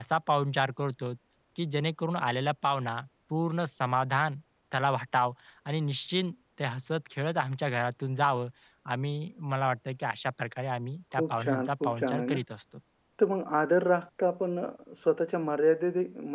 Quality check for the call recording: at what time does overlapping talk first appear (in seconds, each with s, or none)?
11.2 s